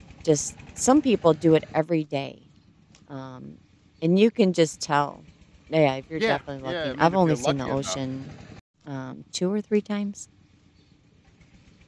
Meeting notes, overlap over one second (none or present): present